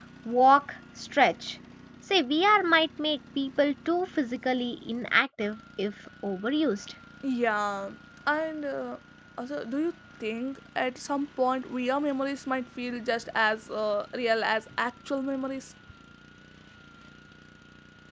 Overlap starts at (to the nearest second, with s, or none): none